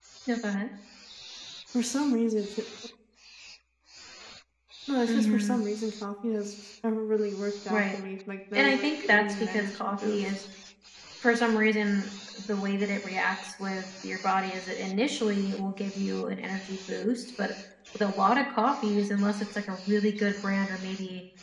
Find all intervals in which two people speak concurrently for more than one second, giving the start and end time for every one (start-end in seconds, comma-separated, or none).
8.5-10.2